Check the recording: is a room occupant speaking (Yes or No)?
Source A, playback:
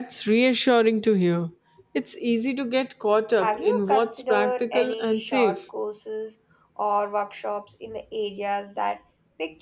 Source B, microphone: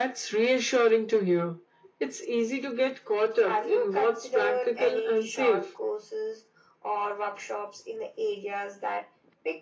No